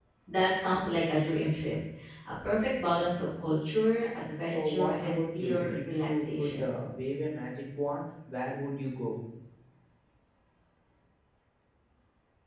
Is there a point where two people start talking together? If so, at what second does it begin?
4.5 s

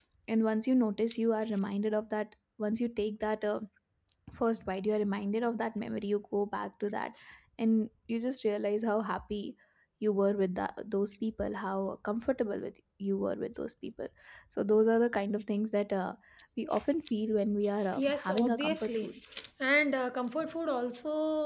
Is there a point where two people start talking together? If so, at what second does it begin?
18.0 s

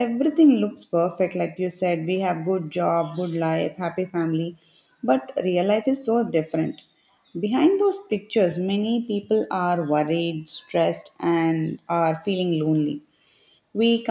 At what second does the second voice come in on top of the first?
none

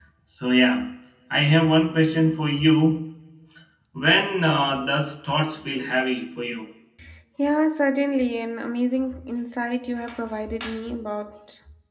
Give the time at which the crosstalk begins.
none

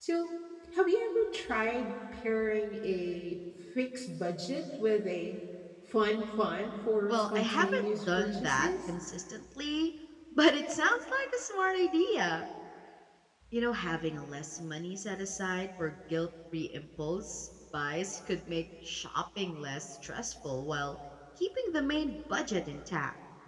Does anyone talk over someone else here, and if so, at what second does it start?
7.1 s

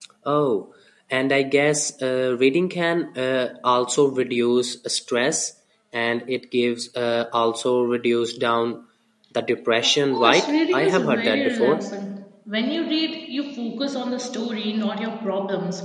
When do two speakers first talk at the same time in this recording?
9.8 s

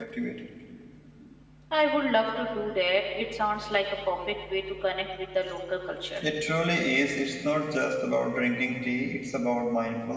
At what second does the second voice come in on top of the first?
none

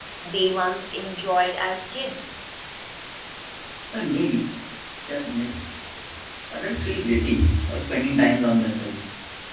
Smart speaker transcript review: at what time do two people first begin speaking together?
none

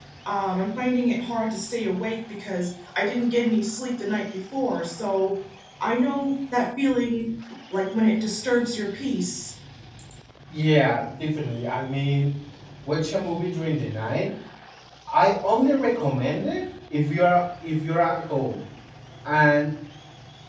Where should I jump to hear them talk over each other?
none

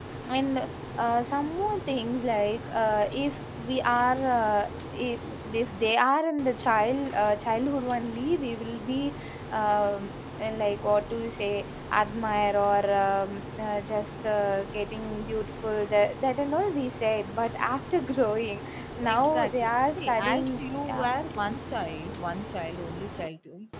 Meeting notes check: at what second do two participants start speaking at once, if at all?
19.0 s

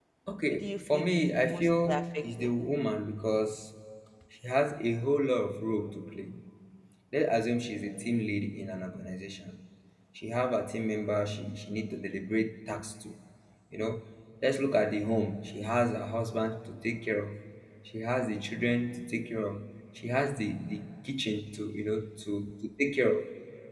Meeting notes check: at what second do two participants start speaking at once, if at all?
0.5 s

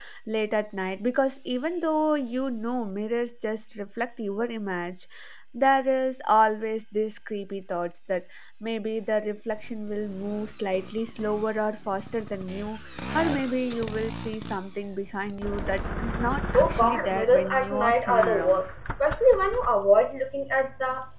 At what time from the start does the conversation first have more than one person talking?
16.5 s

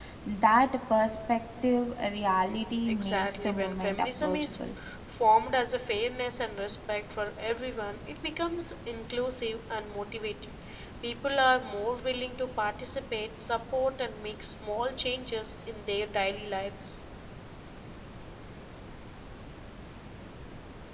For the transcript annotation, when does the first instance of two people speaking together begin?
2.8 s

